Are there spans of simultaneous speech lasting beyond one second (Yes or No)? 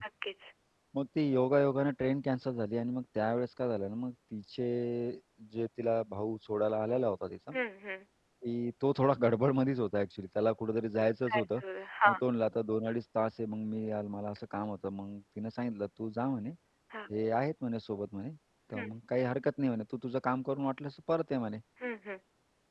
No